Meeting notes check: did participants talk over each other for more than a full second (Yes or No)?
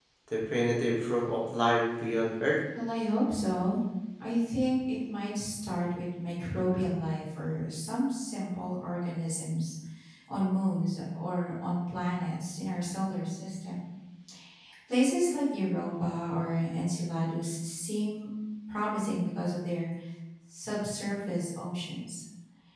No